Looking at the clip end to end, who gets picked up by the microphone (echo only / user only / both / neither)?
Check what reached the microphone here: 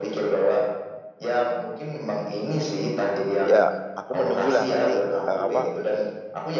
both